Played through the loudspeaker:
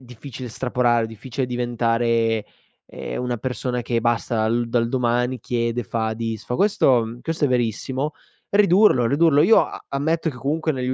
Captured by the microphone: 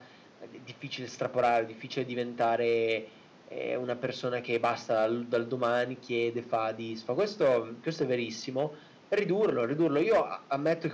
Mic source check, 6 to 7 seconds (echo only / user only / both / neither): echo only